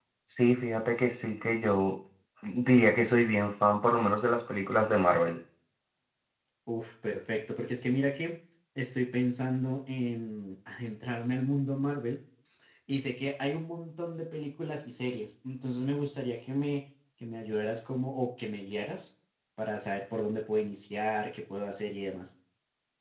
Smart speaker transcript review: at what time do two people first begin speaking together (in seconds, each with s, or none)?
none